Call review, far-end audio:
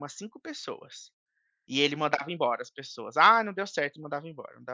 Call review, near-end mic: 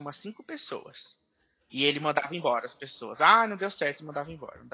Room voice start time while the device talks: none

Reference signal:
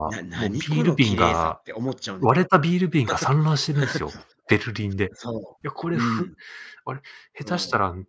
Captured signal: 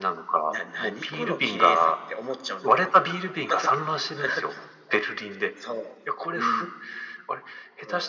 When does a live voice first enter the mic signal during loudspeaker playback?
none

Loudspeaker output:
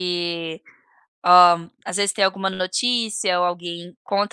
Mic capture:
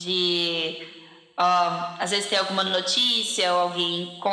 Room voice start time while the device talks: none

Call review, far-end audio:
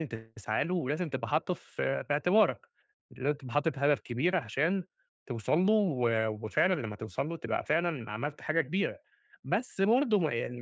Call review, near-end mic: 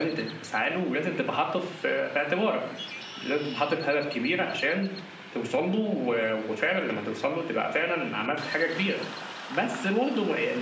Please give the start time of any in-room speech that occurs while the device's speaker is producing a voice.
none

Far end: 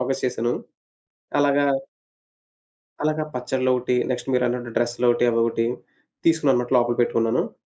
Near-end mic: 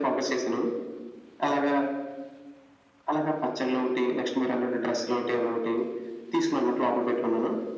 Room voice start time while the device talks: none

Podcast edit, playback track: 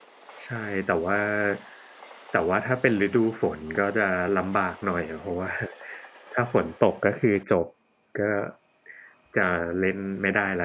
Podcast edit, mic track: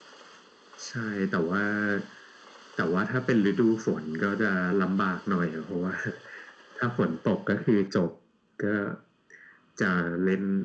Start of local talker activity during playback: none

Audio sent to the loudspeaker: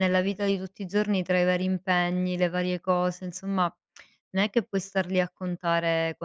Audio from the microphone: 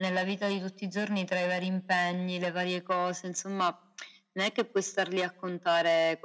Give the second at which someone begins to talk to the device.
none

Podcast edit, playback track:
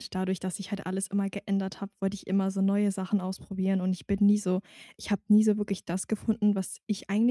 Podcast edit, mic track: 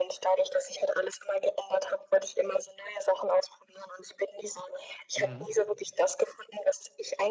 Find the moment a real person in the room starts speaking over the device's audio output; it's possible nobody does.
5.2 s

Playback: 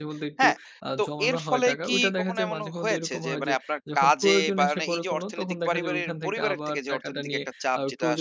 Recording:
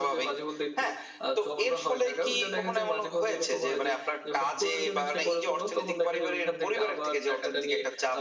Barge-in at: none

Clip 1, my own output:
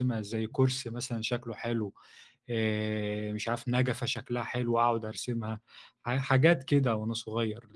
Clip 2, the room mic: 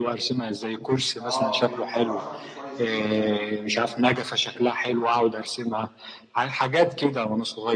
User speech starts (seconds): 1.2 s

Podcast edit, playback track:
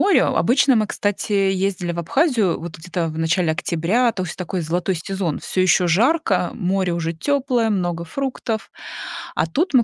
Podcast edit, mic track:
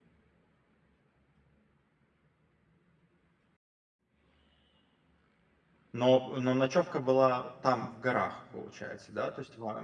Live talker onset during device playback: 5.9 s

